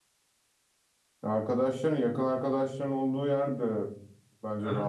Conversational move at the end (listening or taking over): taking over